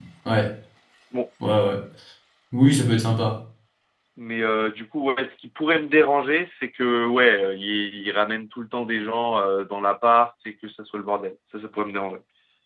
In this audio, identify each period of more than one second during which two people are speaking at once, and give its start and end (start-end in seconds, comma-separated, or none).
none